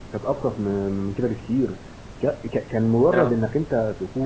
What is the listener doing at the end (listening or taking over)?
listening